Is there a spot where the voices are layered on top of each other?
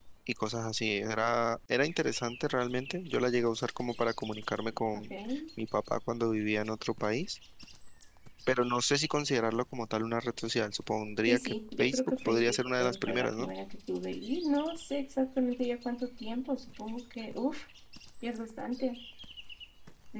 Yes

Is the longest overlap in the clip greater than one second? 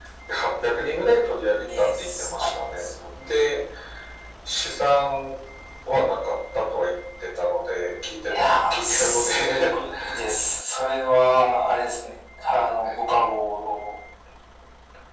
Yes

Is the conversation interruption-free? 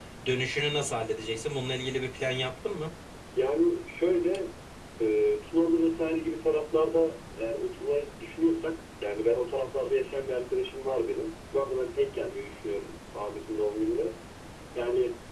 Yes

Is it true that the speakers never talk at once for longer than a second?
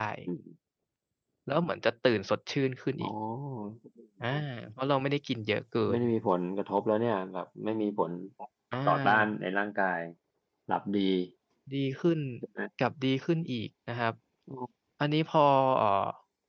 Yes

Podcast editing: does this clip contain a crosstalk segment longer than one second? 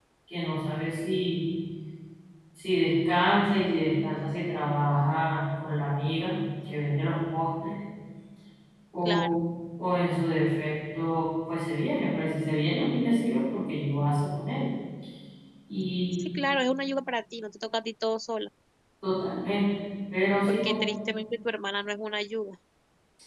No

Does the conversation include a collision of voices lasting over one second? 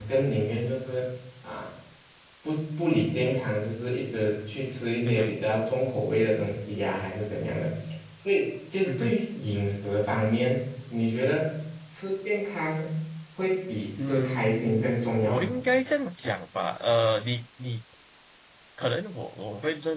Yes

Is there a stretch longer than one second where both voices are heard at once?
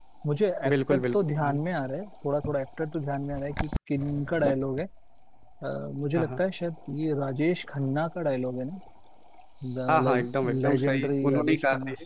Yes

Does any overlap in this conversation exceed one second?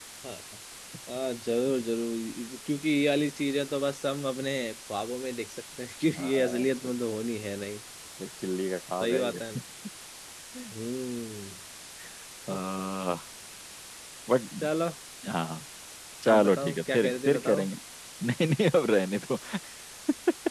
Yes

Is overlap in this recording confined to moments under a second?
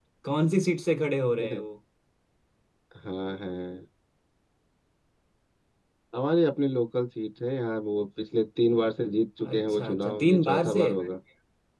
No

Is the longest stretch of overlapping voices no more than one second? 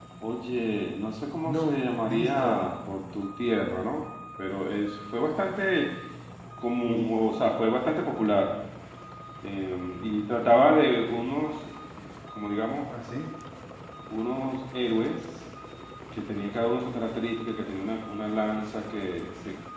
No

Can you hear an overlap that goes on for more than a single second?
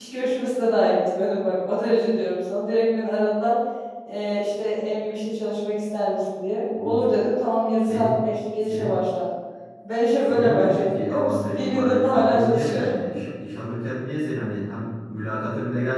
Yes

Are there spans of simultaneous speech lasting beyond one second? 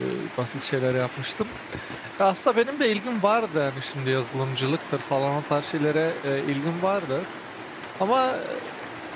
No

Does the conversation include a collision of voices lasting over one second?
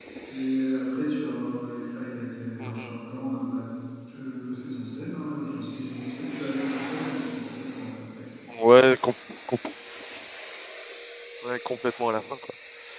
No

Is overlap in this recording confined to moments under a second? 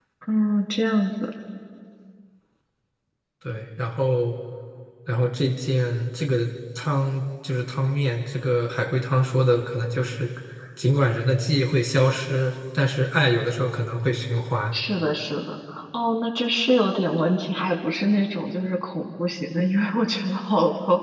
Yes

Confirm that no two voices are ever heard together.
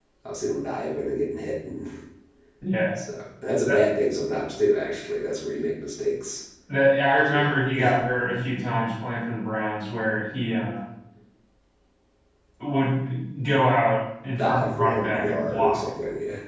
No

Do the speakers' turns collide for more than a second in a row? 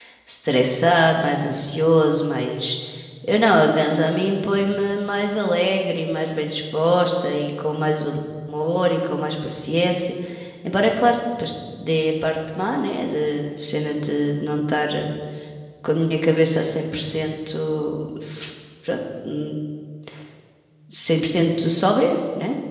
No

